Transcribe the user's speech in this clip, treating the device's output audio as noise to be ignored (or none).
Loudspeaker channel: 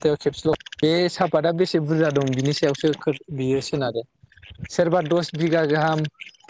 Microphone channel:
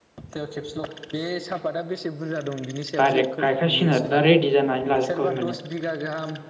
डाइरेक्ट गायखासिगोन आरो दा रेडि जानानै लाजोबखाबाय माने।